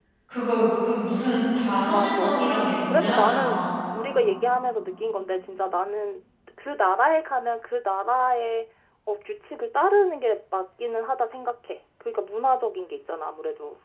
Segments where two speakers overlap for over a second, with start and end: 1.9-3.6

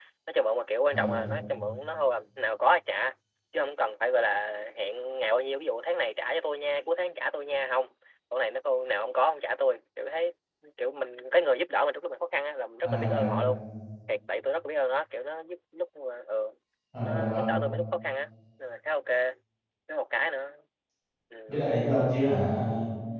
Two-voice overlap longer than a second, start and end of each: none

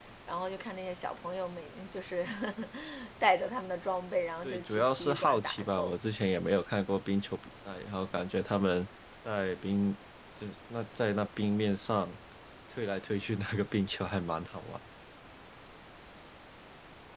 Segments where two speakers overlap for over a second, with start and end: 4.4-6.0

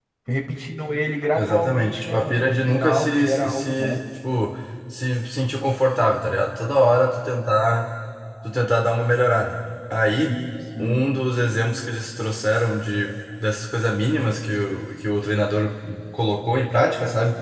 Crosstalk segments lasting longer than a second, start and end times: 1.4-4.0

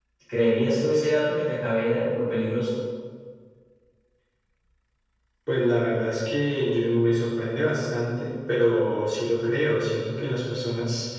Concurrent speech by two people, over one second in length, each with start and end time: none

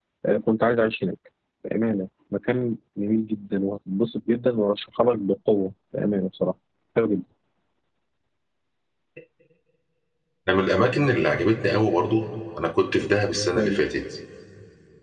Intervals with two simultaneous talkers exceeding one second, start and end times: none

